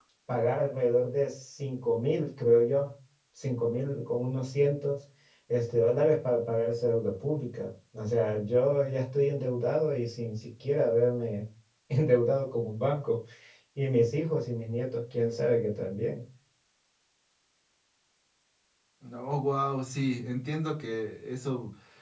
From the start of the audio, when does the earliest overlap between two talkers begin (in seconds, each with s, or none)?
none